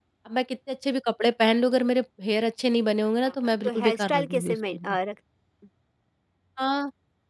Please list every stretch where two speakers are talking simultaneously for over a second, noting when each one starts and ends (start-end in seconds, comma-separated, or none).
3.4-5.0